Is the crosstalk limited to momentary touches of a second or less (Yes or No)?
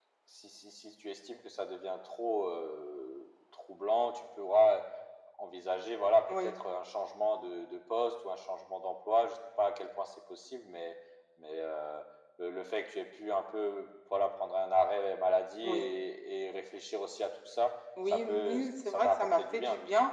No